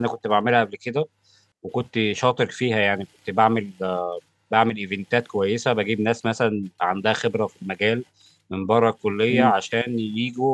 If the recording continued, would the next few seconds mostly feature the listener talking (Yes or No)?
No